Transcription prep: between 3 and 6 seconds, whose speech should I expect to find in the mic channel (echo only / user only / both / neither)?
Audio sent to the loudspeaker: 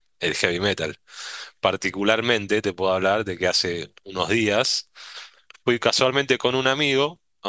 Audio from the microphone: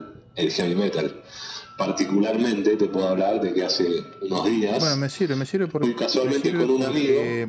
both